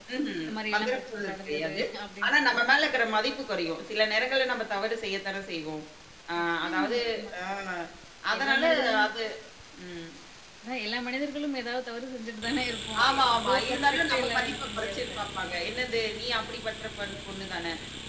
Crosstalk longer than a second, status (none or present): present